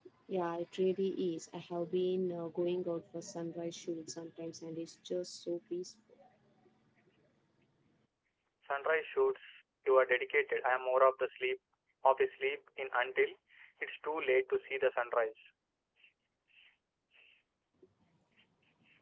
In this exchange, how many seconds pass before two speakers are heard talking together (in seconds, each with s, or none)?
none